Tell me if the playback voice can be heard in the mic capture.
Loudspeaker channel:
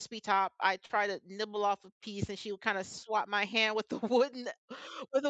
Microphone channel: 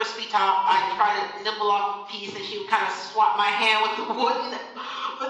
Yes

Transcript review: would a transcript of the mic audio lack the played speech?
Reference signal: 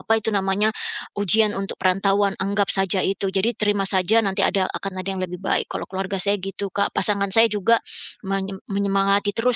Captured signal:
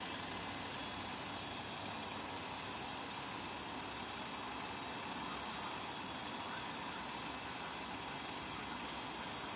Yes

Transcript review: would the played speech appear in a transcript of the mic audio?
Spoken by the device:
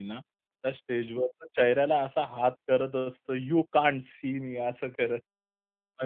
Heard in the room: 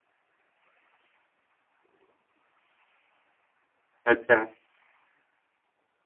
No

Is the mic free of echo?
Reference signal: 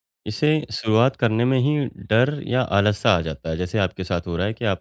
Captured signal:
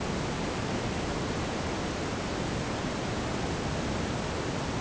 Yes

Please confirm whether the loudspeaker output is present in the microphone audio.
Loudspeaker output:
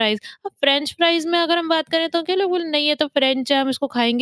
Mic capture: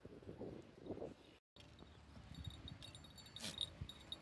No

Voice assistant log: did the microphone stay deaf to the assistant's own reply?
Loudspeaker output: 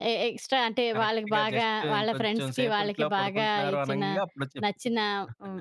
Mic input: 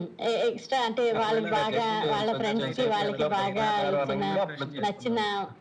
No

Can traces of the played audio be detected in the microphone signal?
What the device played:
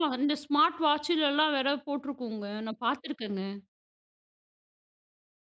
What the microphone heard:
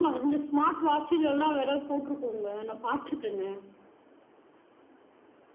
Yes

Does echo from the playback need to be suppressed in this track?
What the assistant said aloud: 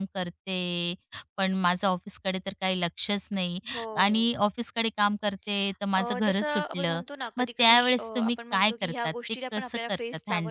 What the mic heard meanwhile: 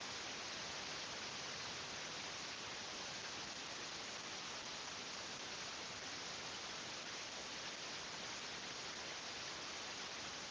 No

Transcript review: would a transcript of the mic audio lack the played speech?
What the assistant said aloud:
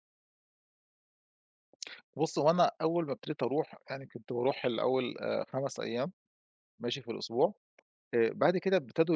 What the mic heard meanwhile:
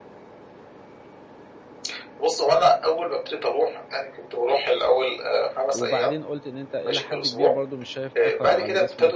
No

